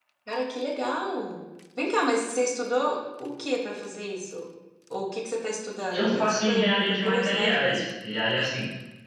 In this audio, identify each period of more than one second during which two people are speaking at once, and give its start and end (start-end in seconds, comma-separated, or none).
5.9-7.9